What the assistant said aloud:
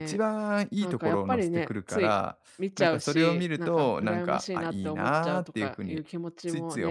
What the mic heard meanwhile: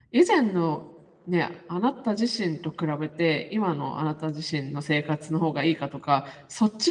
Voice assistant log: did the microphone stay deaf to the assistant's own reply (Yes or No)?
Yes